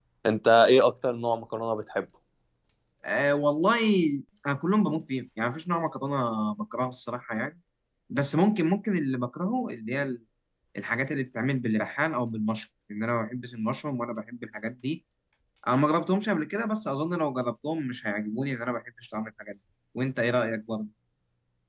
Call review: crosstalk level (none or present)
none